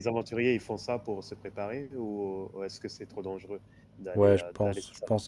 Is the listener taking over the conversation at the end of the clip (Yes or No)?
Yes